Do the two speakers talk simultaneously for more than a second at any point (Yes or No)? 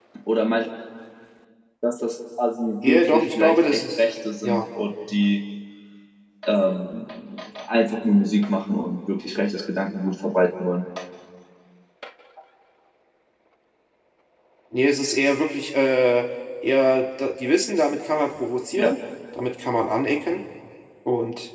Yes